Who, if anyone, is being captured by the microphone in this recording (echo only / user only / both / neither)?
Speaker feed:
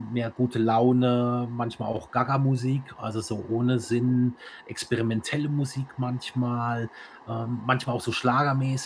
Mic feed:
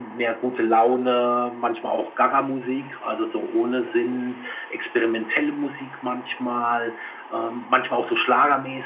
echo only